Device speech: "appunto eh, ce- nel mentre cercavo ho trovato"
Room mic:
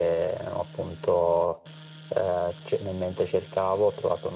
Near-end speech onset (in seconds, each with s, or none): none